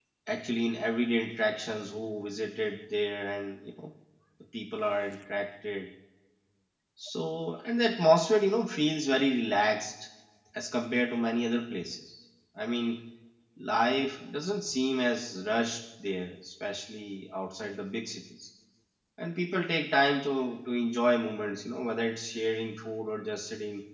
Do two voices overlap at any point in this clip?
No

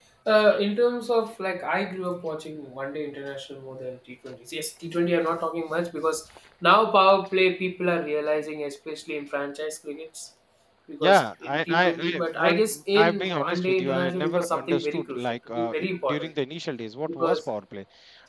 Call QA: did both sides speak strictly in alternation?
No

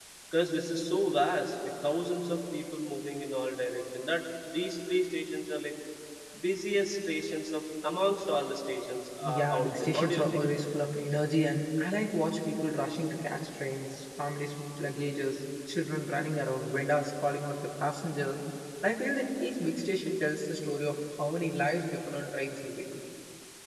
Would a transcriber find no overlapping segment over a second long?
No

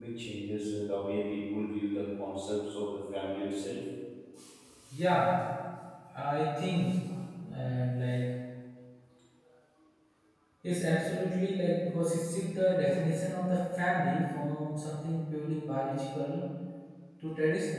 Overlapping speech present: No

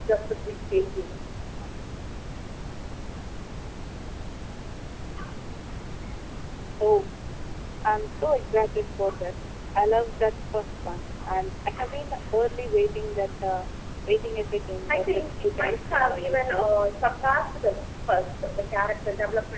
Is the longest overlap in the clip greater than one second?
Yes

